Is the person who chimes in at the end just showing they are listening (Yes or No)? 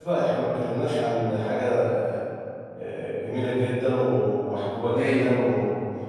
Yes